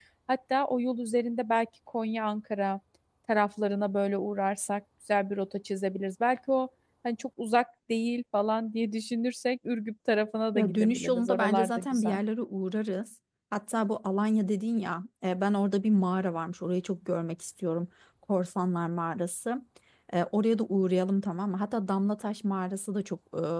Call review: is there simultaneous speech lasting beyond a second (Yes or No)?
Yes